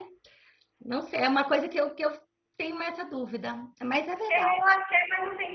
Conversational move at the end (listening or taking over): taking over